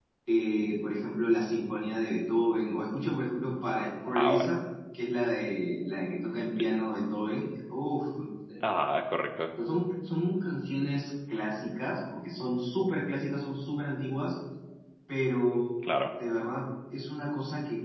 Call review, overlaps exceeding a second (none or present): none